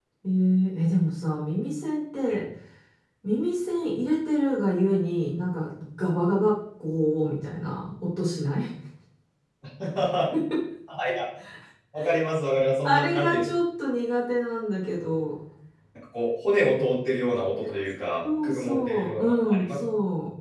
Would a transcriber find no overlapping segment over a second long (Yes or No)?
No